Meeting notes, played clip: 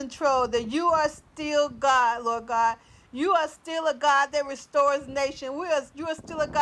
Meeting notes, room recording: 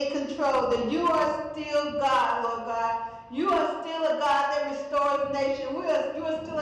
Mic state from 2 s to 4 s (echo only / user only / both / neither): echo only